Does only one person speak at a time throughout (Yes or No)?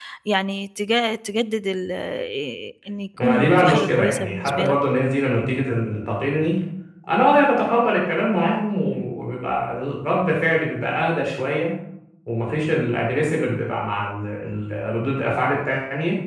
No